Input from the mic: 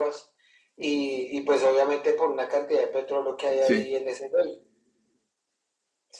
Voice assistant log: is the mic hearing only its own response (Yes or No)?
No